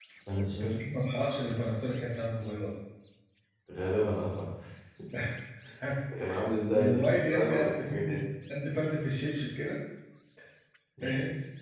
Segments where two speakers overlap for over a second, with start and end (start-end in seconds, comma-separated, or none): 6.7-8.2